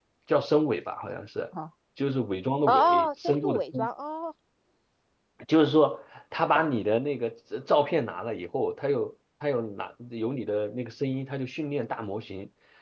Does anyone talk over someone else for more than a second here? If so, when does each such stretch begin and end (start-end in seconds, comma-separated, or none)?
2.7-3.9